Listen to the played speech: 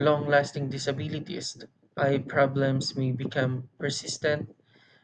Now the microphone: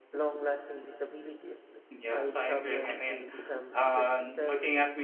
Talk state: both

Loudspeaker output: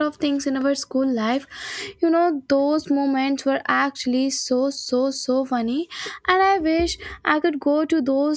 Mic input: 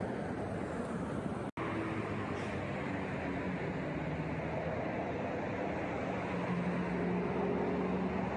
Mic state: neither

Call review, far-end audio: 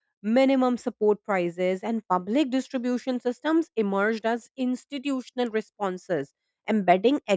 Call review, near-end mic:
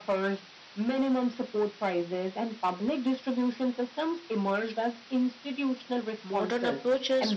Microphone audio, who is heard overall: both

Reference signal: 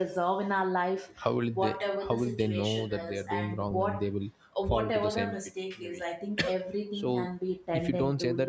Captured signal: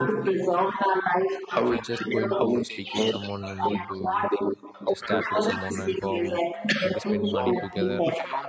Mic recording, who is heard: both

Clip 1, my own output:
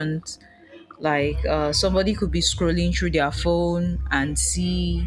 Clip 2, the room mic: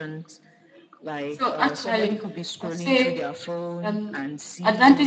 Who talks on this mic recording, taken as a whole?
both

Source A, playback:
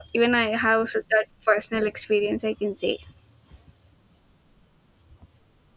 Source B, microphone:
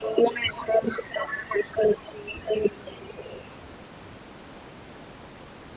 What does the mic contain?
echo only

